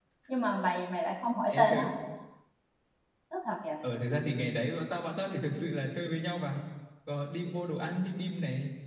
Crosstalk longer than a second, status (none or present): none